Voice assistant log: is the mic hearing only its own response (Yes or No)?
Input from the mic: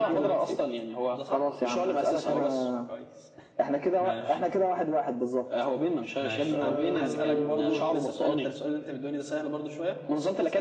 No